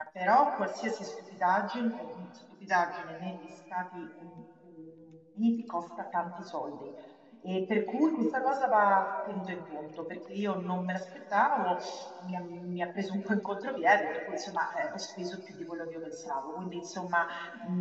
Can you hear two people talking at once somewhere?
No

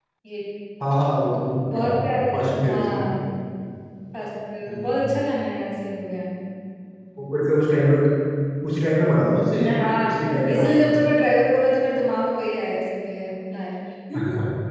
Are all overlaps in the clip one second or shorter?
No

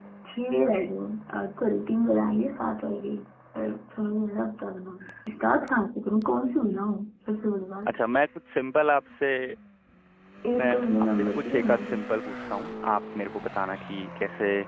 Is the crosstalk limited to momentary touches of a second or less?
No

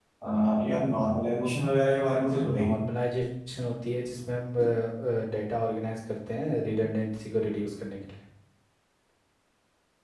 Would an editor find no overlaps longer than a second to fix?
Yes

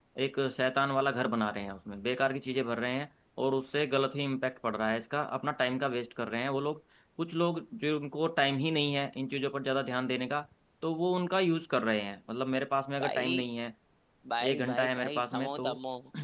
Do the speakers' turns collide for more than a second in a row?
Yes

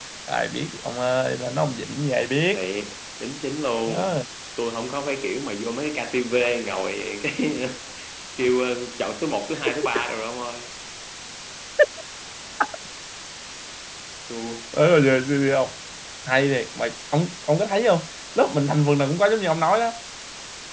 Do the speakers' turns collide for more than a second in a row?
No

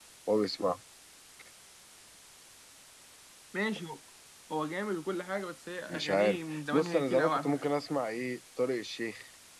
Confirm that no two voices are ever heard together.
No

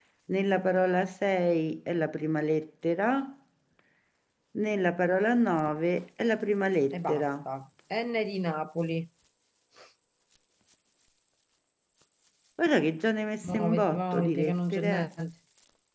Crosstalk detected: Yes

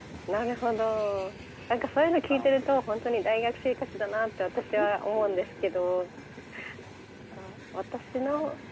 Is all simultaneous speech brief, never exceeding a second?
No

